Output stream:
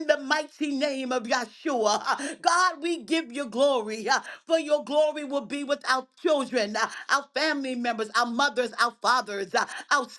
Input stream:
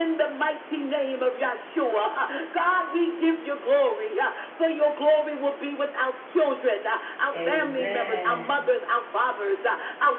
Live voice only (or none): Amen.